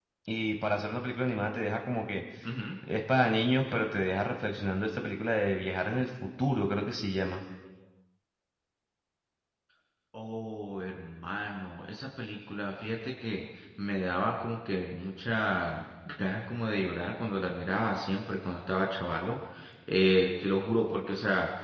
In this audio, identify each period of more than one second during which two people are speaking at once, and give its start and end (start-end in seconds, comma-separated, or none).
none